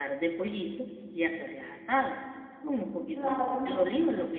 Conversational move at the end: listening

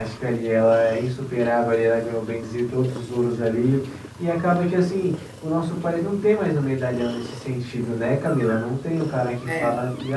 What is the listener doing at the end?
listening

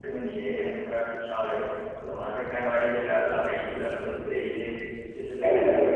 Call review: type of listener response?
taking over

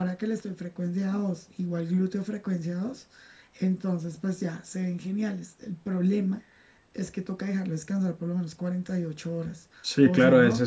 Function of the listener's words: taking over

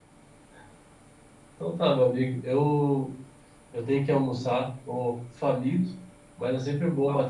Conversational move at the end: listening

